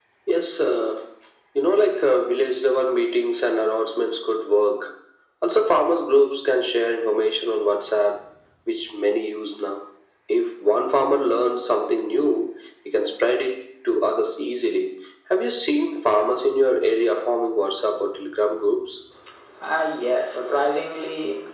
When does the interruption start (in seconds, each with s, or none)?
none